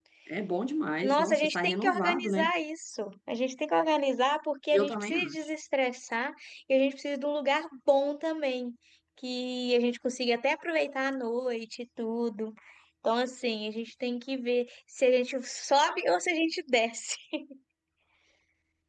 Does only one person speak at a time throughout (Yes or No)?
No